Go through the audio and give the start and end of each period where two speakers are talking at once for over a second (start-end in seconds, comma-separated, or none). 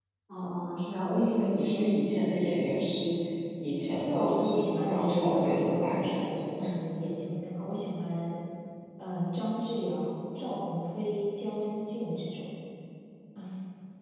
4.0-6.5